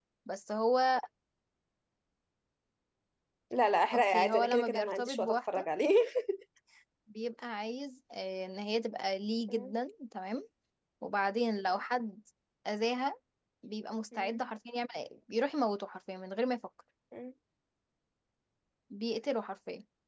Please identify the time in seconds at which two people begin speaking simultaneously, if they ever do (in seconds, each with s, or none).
3.9 s